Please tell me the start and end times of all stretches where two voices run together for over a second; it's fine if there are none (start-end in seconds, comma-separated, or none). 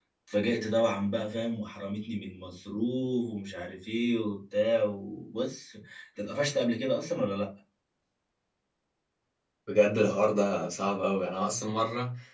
none